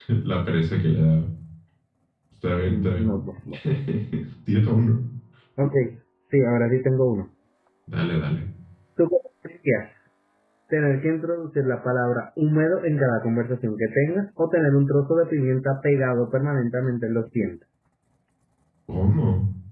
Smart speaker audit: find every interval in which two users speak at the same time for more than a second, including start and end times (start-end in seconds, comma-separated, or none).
none